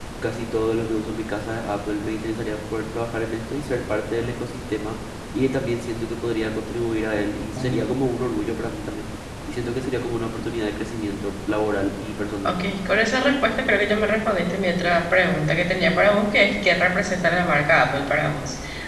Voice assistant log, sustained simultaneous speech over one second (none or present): none